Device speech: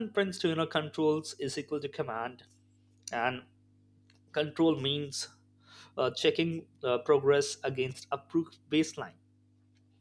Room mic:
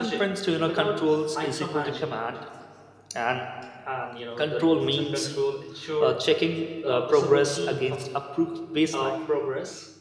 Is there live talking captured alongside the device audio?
Yes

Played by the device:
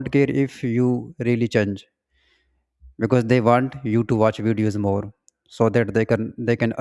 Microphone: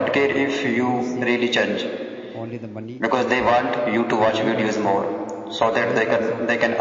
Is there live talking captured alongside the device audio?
Yes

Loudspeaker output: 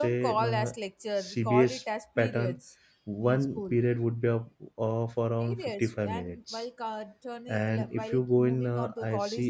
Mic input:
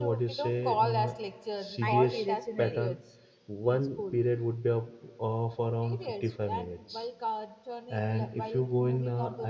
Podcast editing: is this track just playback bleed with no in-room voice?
No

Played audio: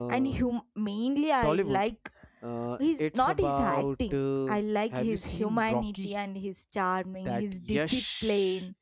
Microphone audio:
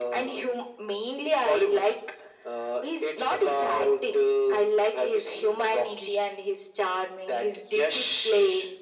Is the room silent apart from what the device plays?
Yes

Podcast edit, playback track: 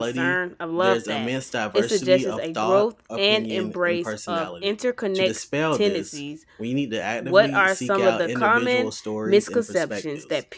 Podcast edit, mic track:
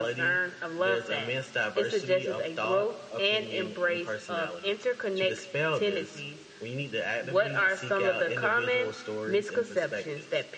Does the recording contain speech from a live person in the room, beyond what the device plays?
No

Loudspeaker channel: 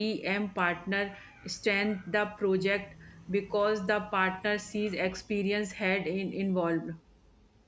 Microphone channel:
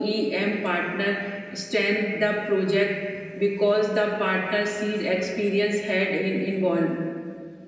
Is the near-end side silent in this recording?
Yes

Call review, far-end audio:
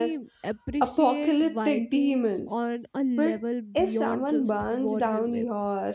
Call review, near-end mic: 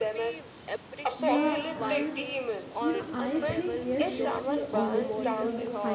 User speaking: Yes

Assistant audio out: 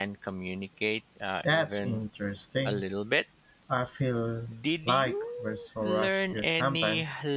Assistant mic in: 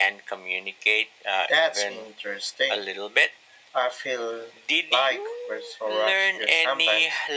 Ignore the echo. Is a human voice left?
No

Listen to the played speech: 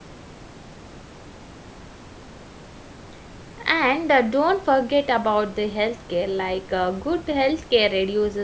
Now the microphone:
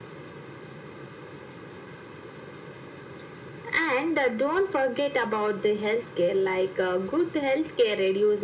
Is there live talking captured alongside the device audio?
No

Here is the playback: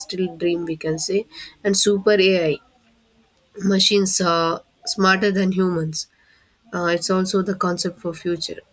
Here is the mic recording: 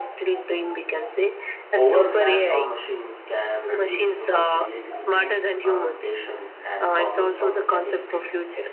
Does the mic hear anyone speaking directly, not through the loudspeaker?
Yes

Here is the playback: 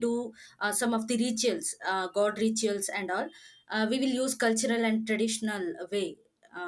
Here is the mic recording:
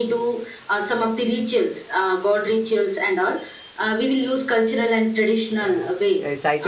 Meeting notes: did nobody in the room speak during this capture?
No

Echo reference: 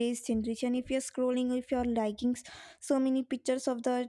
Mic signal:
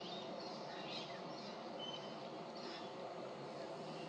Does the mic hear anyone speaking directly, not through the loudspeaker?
No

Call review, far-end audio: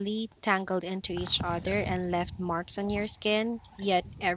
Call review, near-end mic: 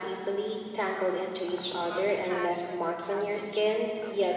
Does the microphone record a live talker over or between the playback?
Yes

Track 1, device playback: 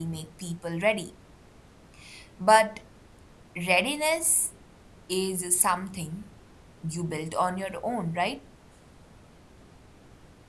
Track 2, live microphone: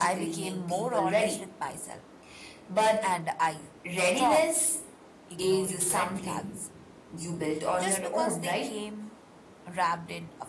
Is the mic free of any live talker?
No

